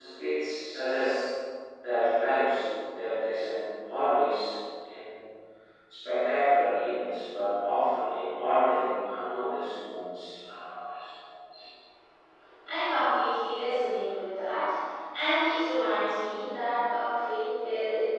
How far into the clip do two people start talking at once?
none

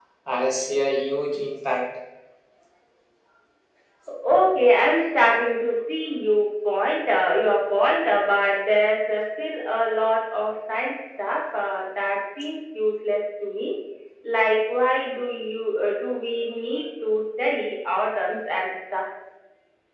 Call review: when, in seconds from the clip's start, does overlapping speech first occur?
none

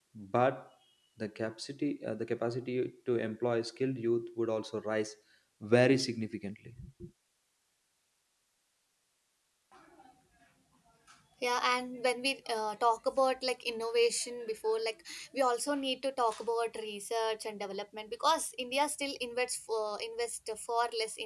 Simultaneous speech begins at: none

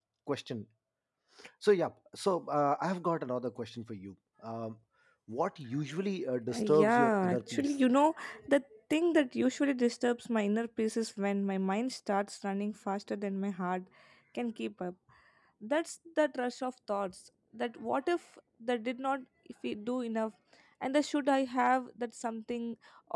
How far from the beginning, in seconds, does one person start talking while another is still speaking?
6.5 s

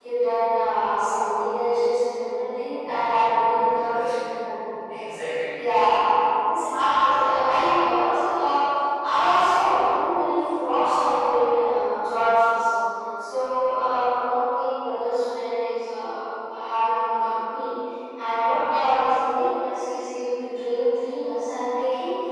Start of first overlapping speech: 2.8 s

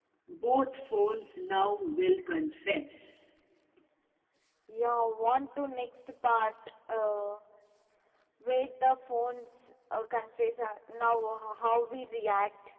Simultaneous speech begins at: none

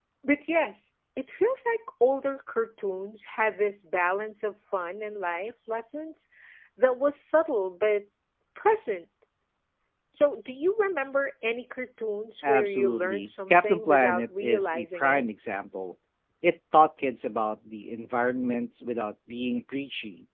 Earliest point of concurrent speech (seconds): 12.4 s

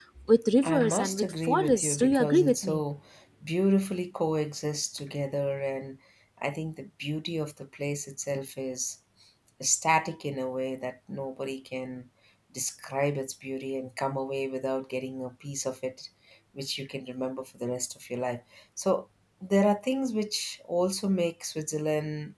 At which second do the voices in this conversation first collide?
0.6 s

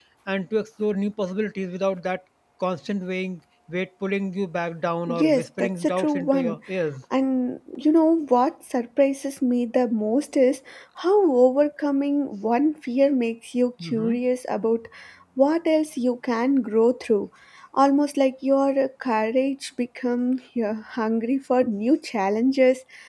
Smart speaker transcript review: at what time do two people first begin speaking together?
5.1 s

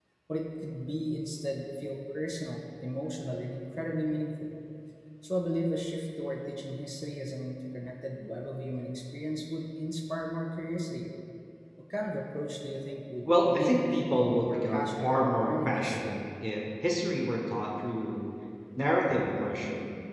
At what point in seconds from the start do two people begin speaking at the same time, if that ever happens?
13.3 s

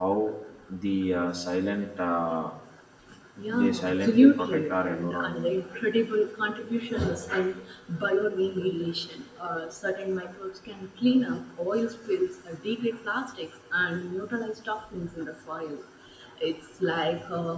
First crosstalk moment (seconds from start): 3.5 s

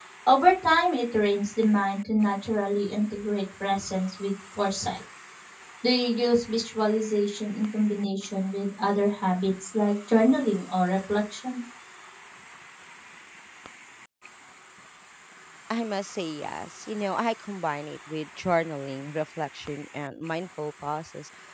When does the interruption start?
none

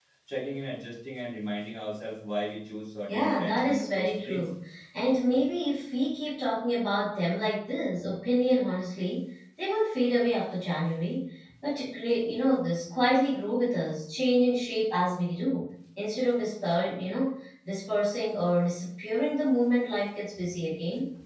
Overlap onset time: 3.1 s

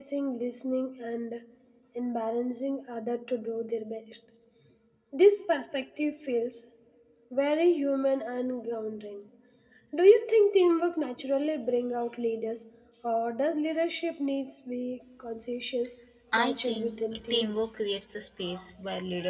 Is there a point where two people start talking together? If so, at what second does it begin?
16.3 s

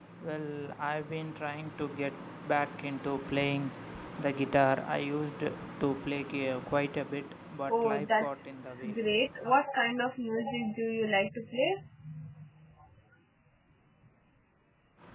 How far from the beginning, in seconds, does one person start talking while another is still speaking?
7.7 s

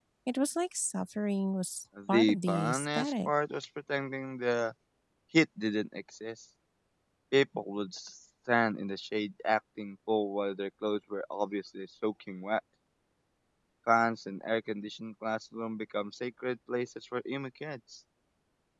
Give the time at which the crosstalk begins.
2.0 s

